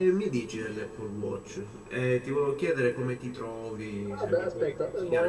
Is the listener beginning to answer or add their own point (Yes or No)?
Yes